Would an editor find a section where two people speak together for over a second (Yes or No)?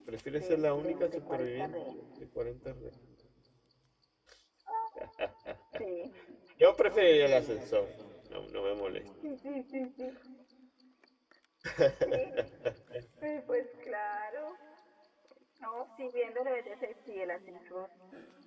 Yes